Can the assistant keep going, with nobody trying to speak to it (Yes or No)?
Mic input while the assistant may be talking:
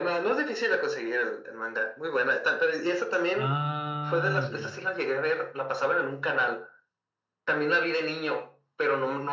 No